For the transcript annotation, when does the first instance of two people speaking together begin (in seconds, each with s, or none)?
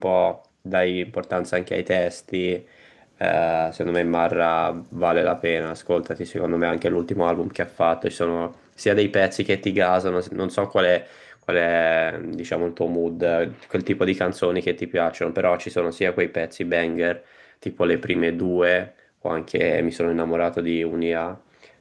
none